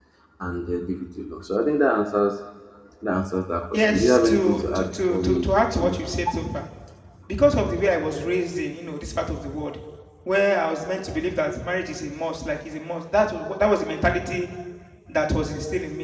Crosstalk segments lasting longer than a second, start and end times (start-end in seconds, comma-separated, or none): 3.7-6.0